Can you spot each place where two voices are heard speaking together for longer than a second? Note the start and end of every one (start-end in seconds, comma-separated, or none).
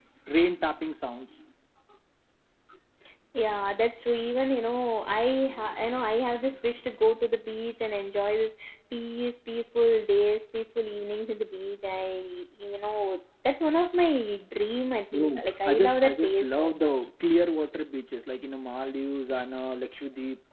15.1-17.1